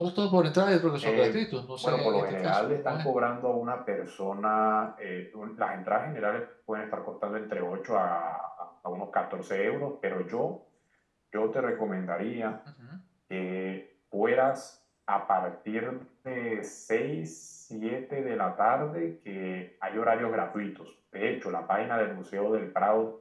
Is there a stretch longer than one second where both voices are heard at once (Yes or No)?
Yes